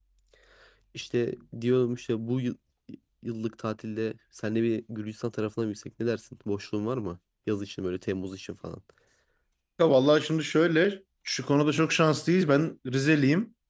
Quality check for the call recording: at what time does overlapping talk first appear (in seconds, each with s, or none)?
none